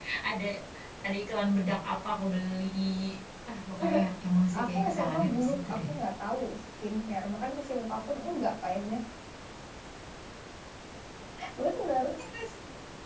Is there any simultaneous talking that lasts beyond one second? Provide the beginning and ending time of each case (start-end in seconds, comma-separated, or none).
4.6-5.8